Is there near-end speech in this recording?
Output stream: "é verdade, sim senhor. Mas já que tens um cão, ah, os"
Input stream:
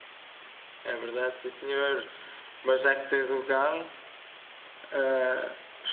No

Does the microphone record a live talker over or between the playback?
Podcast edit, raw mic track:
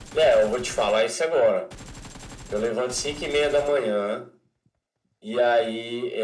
No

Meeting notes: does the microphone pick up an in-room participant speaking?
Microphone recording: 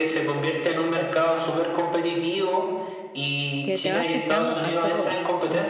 Yes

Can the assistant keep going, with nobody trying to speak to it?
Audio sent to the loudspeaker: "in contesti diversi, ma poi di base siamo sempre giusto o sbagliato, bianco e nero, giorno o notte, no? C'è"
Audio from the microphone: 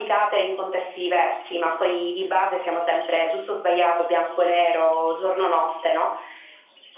Yes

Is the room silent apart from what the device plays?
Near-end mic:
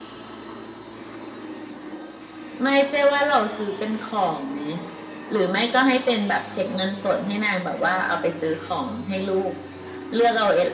Yes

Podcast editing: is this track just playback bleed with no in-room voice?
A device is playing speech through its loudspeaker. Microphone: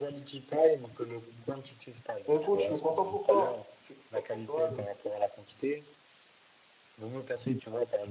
No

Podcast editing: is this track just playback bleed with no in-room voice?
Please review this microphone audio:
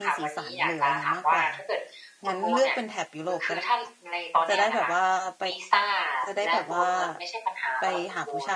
No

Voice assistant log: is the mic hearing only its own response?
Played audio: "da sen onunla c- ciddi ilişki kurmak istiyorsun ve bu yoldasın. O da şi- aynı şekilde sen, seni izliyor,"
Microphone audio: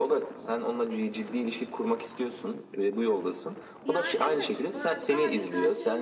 No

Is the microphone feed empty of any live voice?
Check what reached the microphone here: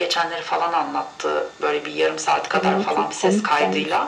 No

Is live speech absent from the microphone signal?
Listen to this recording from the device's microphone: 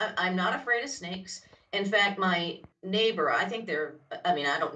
No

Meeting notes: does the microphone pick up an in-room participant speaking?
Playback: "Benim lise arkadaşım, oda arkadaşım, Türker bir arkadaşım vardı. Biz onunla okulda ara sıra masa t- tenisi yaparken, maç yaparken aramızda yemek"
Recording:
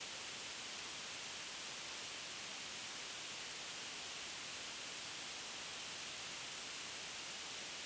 No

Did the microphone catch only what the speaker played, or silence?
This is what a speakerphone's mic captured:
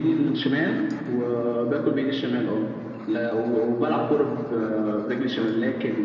Yes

